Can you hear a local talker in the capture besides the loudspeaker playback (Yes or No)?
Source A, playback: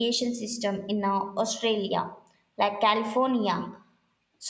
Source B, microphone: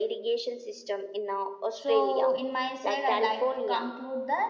Yes